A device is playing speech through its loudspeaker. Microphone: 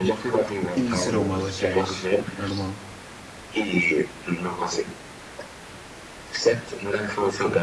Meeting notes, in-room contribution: present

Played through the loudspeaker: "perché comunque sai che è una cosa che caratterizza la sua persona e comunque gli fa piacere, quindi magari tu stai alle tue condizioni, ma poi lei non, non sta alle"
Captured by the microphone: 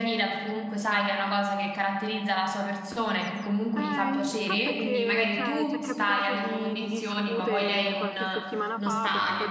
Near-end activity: present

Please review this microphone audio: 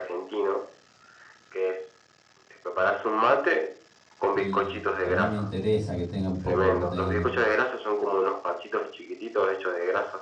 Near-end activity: present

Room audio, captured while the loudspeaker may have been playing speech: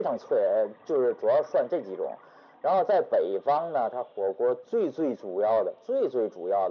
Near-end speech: none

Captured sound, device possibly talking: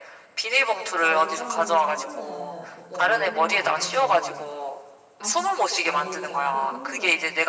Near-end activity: present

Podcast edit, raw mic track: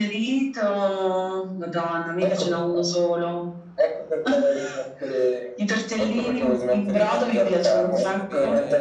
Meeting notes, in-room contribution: present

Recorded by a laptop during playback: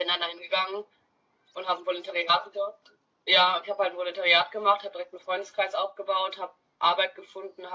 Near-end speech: none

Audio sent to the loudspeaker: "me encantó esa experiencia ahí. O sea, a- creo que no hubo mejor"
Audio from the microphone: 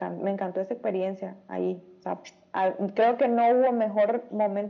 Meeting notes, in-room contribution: none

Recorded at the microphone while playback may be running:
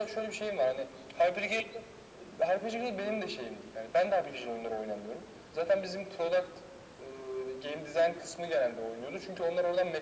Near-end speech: none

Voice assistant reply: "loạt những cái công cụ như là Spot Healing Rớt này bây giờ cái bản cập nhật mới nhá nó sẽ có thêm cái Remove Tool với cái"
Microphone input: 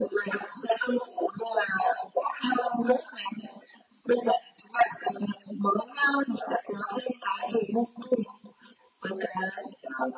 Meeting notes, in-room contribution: none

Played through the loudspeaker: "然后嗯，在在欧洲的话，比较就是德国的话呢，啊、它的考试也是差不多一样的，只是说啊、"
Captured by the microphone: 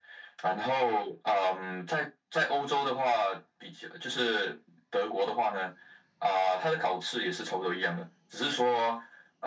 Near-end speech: none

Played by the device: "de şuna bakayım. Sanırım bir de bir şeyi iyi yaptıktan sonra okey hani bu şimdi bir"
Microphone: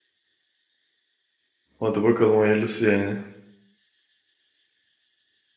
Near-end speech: present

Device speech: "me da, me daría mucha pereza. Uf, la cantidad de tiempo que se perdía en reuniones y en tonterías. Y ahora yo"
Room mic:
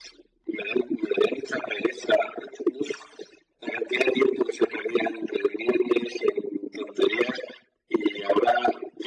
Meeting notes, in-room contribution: none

